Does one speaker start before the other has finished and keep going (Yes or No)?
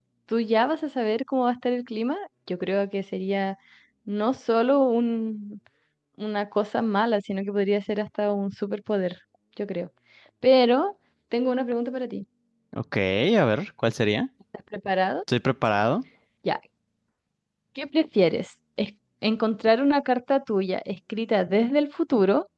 No